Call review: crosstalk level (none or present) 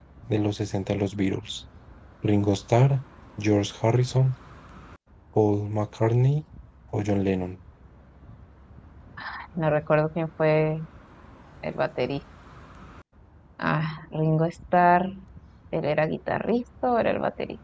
none